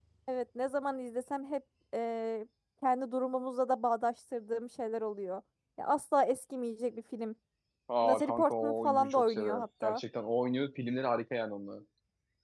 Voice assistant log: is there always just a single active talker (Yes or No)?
No